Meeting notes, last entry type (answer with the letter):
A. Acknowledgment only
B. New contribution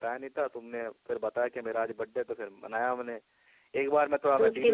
A